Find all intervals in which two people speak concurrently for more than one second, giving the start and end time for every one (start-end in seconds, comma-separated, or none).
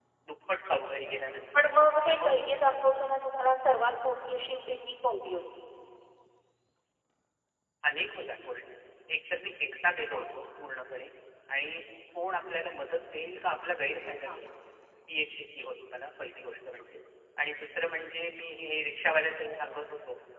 none